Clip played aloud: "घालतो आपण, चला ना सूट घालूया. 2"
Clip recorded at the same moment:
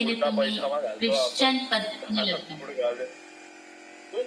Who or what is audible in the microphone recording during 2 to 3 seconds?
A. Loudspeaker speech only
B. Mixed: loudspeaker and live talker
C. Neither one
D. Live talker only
B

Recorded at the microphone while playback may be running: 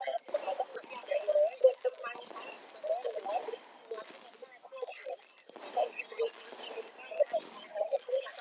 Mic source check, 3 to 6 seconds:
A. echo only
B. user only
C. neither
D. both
A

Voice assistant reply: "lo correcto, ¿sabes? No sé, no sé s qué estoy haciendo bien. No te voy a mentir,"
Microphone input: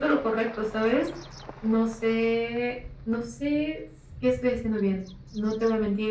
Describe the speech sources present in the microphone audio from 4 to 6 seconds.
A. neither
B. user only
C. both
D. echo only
D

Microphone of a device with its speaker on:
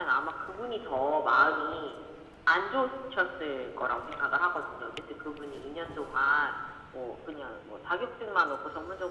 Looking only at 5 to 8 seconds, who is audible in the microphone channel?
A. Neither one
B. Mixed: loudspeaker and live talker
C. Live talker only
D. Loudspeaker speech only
D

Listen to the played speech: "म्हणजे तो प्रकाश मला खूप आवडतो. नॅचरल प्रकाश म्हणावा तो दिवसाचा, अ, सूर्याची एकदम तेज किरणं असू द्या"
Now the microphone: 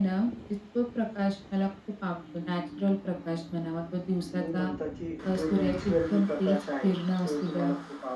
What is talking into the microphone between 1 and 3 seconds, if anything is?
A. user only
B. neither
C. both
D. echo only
D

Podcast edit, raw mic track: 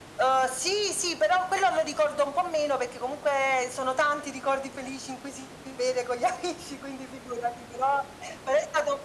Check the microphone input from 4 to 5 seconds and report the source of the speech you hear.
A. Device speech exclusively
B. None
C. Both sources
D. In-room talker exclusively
A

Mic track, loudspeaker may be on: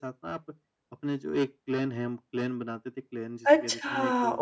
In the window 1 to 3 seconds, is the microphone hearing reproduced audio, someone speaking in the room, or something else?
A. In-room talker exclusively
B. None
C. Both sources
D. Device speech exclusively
D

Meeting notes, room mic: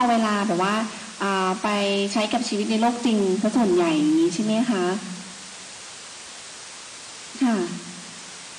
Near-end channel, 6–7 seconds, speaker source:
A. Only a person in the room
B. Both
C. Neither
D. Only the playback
C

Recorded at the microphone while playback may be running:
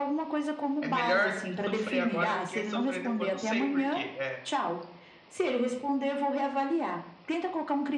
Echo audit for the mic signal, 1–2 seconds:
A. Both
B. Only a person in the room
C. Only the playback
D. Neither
A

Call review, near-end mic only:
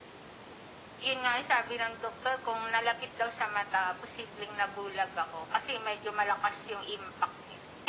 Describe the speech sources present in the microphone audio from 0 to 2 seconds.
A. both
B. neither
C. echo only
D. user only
C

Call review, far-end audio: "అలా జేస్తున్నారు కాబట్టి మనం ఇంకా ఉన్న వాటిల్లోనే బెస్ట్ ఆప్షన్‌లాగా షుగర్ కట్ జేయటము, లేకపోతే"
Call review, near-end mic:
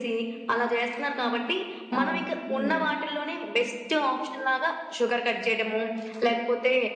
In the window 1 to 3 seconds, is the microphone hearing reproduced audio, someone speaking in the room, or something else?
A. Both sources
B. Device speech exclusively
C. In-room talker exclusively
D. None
A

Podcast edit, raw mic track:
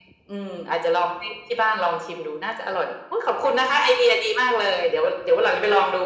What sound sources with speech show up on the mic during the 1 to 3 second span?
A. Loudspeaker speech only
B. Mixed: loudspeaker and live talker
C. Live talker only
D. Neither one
A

